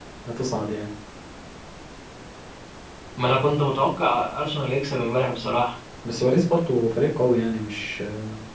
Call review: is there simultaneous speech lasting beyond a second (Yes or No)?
No